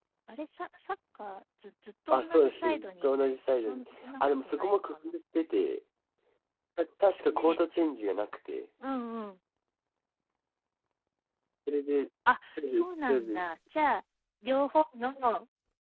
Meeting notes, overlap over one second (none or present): present